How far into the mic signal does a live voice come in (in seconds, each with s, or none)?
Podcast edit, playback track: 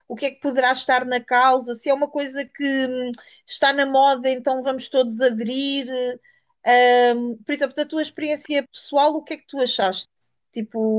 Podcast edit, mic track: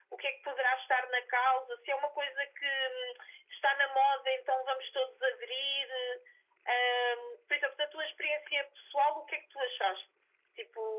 none